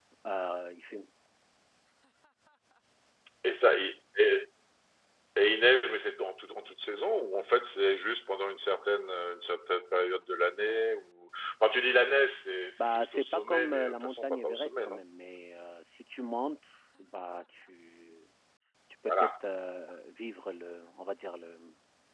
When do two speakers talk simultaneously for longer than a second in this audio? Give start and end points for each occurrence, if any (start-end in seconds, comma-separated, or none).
12.8-15.0